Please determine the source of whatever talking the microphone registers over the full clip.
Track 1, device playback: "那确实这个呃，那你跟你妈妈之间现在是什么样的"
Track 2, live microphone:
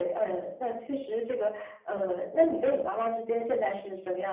echo only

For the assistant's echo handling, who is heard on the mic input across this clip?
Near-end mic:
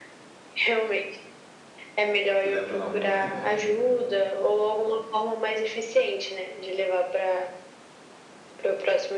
both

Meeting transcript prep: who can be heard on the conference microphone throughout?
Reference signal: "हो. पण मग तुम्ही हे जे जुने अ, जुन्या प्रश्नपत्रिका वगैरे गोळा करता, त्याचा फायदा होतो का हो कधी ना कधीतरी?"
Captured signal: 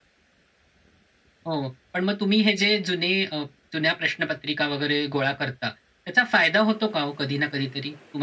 echo only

